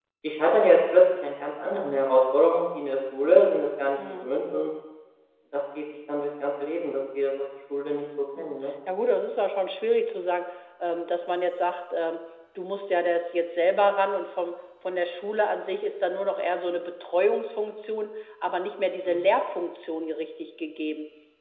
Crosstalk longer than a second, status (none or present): none